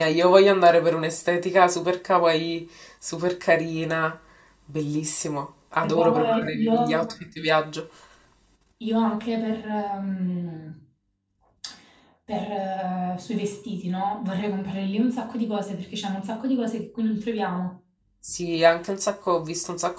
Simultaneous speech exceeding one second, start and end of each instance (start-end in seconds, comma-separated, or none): 5.8-7.1